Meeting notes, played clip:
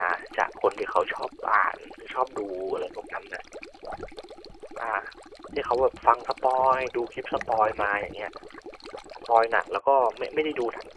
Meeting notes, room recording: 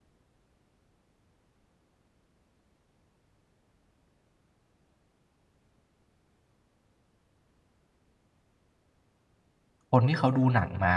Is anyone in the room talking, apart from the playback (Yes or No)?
Yes